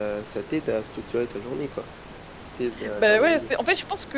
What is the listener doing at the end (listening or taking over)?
taking over